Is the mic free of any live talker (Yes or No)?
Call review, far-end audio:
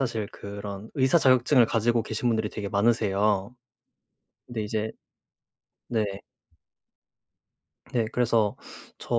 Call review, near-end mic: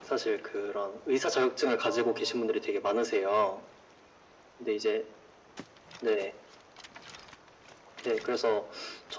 No